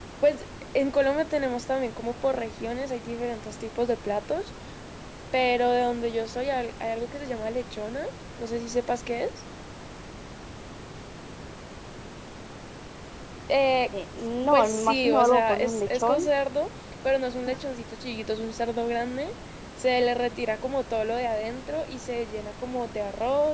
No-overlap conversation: No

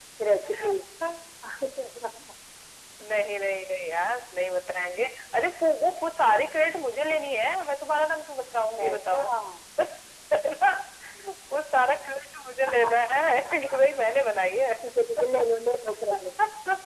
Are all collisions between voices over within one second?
Yes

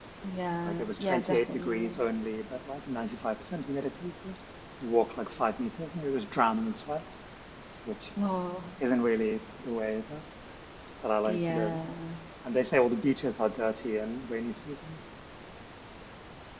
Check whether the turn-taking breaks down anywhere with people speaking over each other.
Yes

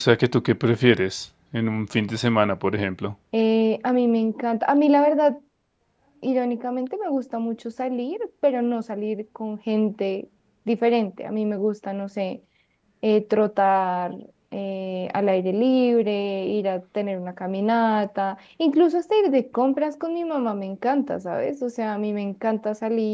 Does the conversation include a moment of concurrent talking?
No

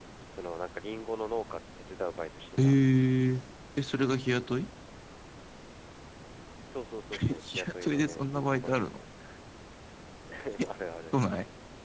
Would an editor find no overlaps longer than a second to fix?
No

